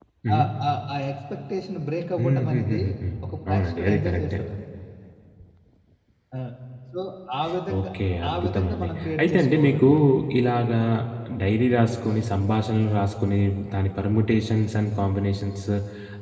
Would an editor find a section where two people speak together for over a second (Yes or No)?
Yes